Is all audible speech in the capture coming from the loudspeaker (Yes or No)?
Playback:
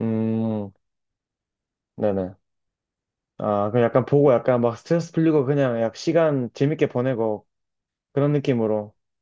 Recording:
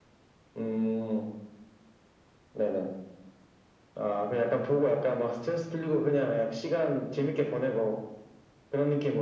Yes